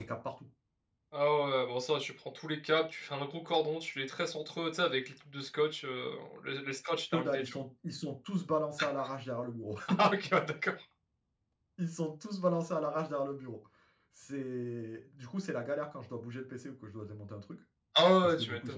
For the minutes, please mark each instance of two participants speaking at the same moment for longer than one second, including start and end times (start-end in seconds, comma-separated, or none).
none